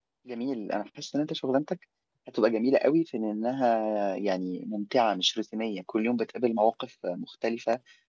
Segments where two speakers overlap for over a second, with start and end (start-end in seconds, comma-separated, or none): none